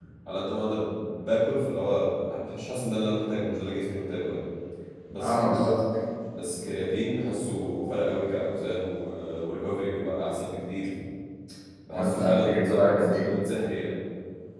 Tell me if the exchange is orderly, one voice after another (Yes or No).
No